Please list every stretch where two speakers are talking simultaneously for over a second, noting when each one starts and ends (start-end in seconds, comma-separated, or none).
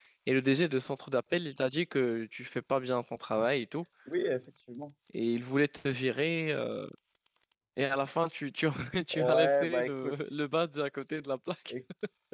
9.1-10.3